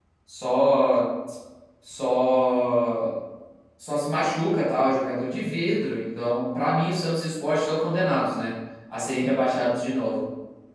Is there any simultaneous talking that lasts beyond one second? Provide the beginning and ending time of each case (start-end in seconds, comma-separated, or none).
none